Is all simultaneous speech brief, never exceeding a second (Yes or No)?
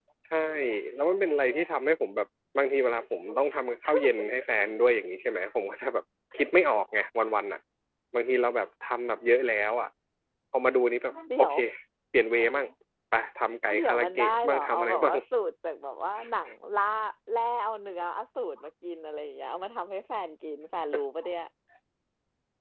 No